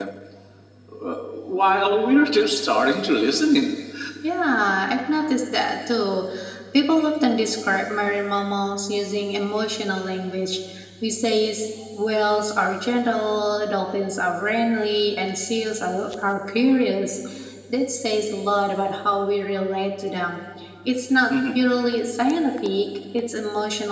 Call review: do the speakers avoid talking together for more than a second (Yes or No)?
Yes